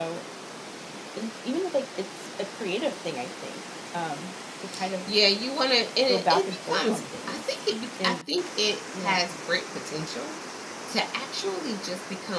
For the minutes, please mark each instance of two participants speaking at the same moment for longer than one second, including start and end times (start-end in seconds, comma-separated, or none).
6.1-7.6